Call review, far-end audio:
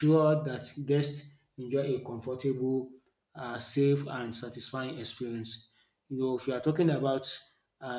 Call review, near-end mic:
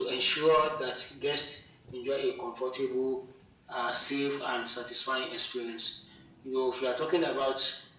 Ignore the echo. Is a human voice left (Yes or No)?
No